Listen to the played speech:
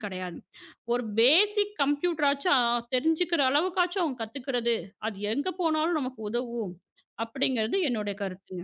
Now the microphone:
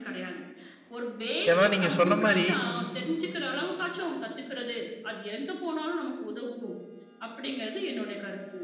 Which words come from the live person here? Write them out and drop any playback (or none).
ஏன்னா நீங்க சொன்ன மாரி,